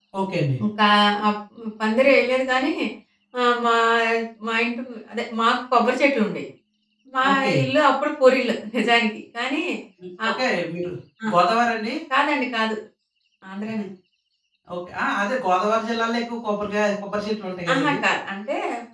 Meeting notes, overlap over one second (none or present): none